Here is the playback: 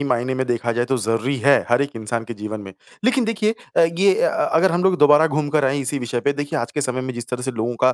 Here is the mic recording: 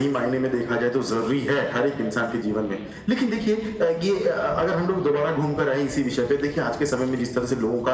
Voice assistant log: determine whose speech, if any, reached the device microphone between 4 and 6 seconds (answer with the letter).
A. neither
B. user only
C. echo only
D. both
C